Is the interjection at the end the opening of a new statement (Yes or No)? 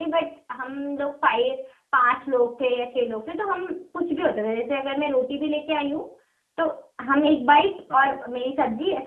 No